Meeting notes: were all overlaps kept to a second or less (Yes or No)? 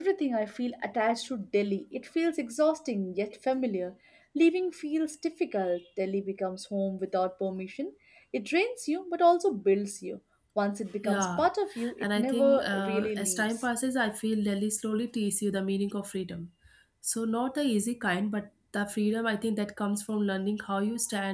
No